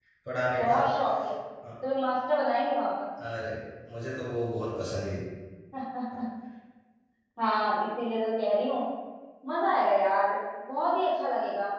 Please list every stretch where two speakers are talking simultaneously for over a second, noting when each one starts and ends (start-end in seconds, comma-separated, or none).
none